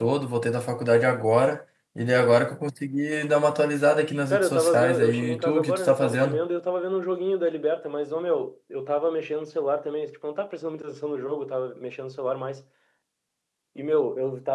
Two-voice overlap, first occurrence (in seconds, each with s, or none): 4.3 s